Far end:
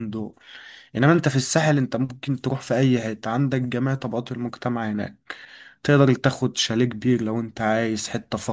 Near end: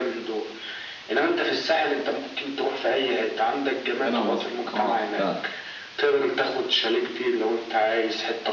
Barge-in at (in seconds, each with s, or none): 4.0 s